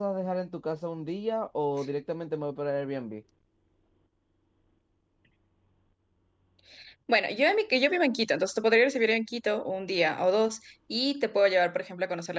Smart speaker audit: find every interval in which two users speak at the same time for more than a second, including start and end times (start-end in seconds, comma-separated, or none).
none